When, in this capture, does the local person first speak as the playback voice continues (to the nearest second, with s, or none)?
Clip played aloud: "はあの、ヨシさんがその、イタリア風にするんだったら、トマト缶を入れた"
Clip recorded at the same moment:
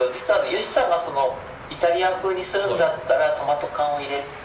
3 s